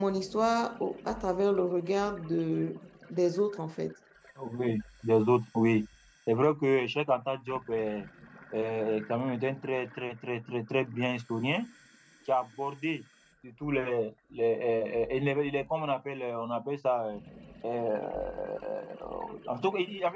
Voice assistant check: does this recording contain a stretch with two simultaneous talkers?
No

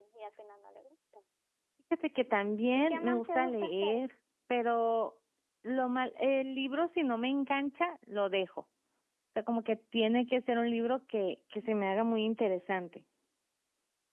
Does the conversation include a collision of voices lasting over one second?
Yes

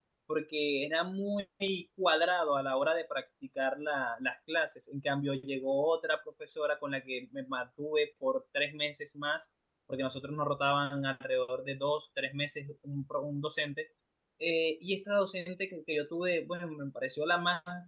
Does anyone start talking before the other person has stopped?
No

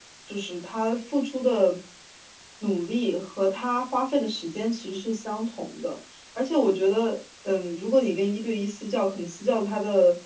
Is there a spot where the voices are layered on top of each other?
No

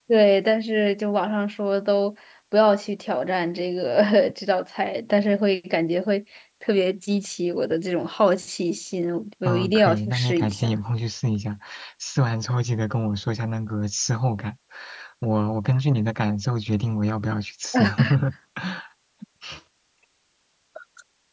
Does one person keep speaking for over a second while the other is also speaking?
Yes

